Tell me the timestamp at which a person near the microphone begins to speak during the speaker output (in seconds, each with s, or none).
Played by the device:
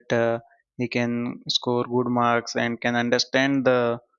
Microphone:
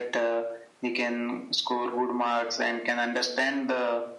none